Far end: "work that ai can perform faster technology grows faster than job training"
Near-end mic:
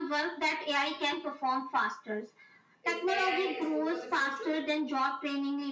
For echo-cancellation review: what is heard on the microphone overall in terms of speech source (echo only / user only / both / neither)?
both